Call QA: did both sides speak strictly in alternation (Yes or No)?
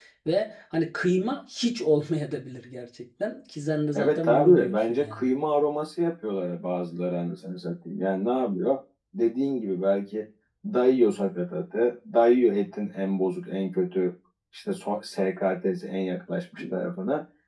No